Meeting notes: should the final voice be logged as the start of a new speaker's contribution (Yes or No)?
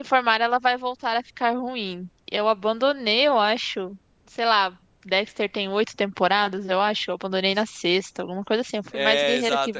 Yes